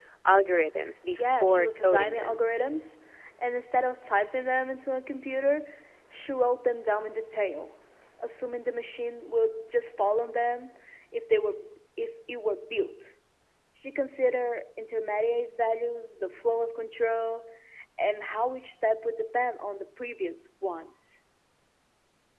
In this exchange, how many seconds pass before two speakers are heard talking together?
1 s

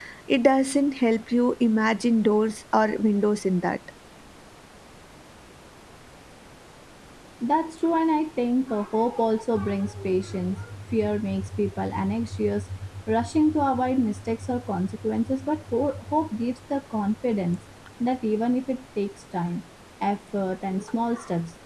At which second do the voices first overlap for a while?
none

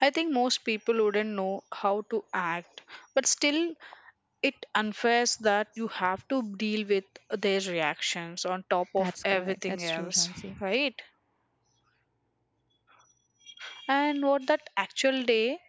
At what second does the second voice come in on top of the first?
9 s

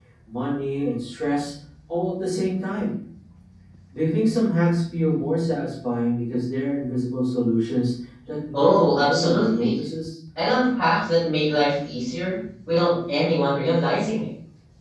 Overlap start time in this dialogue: 9 s

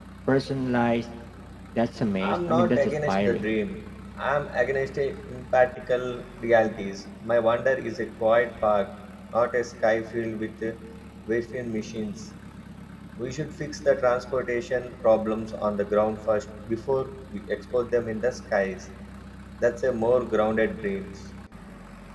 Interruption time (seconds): 2 s

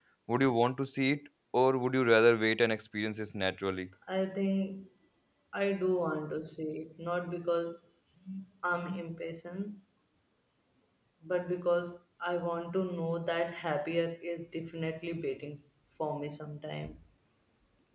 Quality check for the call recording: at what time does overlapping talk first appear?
none

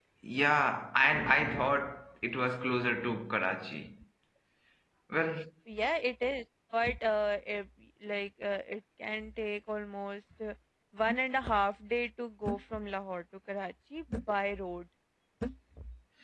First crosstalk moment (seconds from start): none

